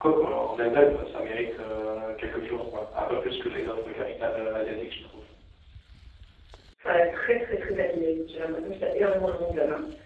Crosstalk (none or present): none